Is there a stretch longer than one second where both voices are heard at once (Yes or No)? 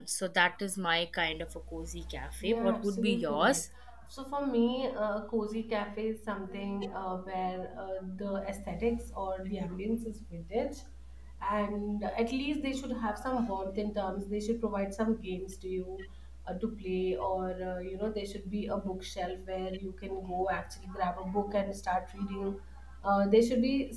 Yes